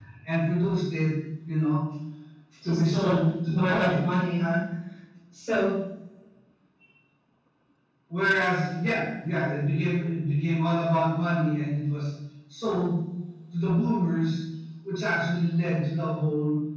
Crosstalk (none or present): present